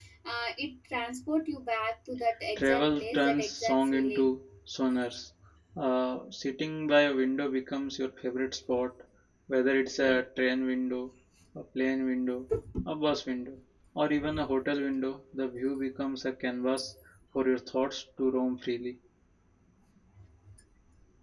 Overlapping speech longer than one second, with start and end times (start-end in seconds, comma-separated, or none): 2.6-4.3